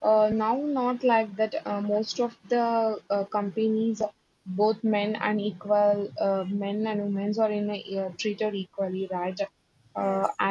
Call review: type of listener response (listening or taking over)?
listening